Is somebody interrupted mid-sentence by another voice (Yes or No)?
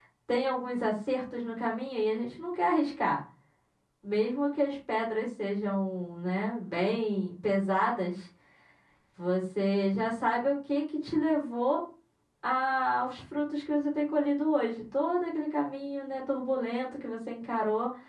No